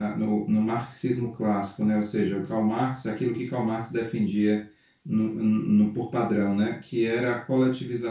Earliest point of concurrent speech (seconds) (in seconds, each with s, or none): none